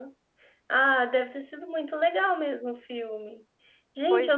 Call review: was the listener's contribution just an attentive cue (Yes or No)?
Yes